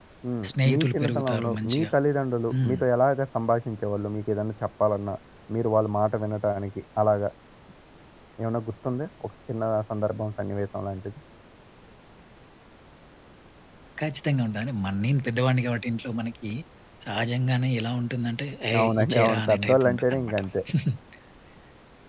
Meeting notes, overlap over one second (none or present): present